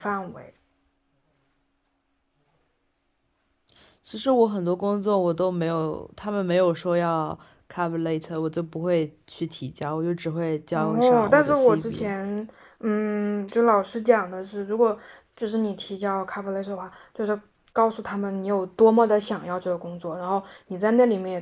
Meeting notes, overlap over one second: present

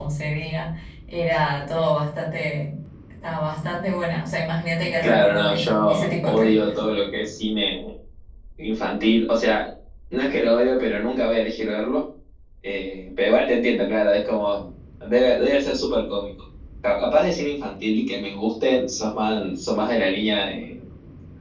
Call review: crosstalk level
present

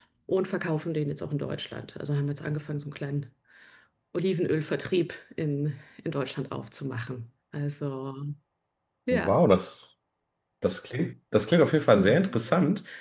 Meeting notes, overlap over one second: none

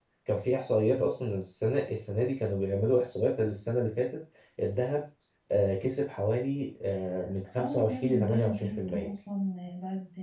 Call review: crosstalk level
present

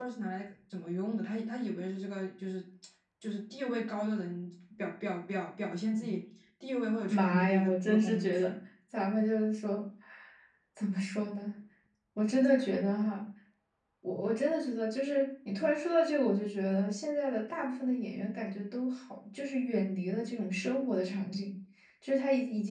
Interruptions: present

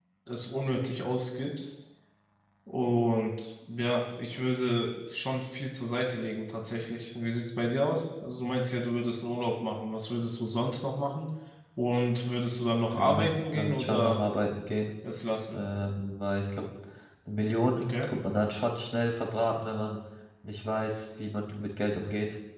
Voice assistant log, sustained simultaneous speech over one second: present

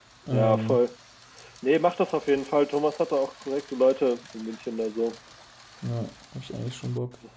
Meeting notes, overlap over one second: none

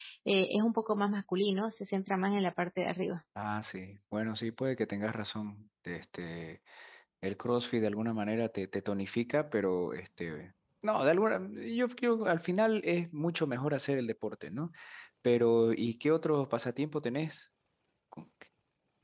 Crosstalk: none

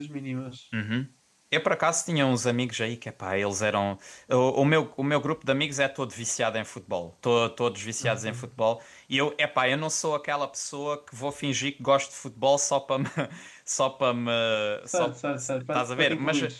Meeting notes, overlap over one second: present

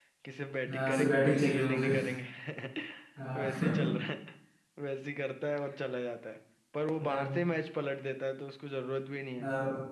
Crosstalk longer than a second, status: present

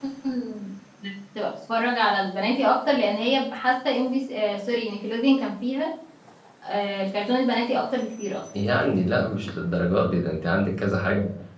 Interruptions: none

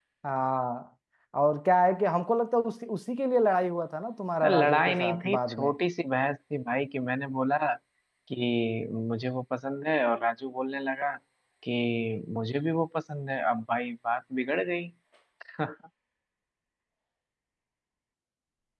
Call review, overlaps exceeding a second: present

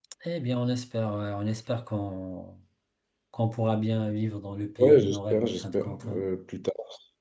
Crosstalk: present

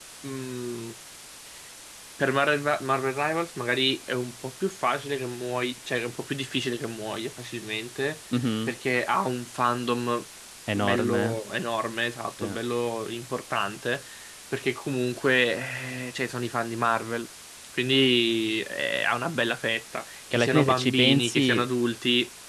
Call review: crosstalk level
present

